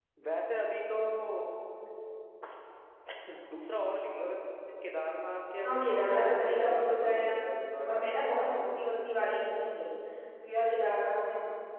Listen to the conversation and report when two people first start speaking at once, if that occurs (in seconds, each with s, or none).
5.6 s